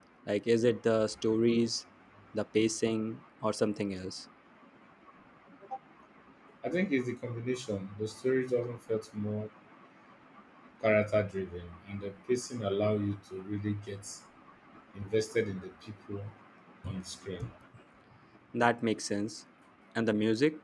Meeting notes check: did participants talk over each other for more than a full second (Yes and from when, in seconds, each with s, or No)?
No